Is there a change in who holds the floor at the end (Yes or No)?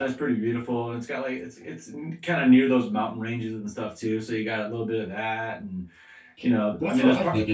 Yes